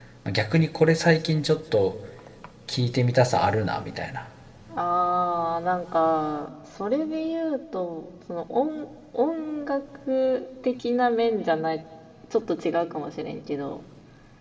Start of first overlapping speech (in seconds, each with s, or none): none